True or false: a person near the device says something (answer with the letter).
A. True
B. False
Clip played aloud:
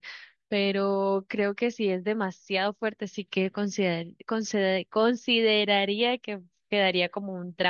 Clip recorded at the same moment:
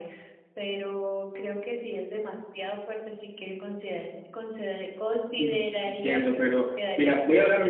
A